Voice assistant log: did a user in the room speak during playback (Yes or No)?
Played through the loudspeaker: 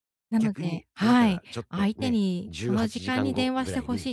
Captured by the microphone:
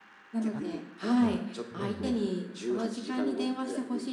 Yes